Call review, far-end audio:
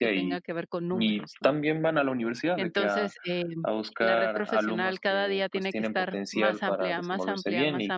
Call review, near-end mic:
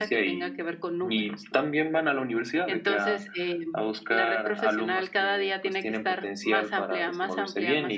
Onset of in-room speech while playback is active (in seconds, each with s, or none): none